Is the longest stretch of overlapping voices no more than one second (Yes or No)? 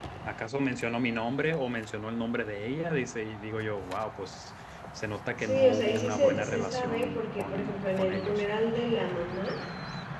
No